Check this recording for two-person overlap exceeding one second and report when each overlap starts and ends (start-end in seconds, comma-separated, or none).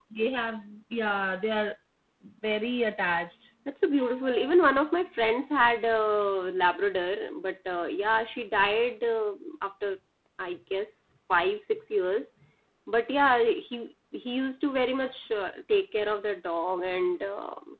none